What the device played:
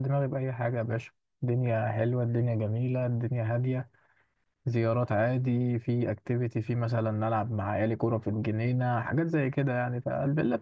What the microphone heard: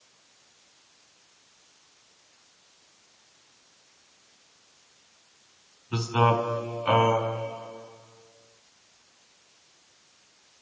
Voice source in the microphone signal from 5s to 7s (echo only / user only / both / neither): user only